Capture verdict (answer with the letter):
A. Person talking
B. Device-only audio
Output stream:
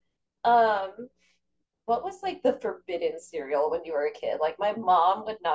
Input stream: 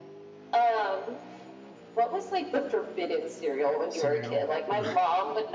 A